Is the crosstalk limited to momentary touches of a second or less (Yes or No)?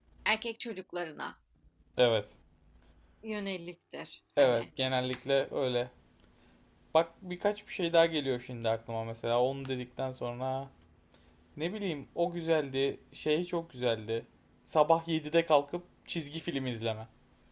Yes